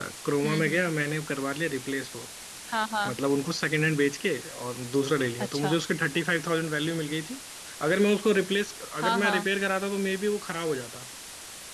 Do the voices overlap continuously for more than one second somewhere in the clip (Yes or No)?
No